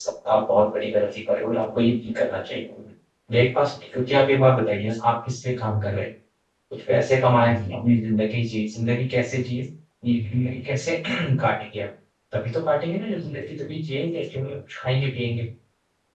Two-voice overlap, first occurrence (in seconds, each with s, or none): none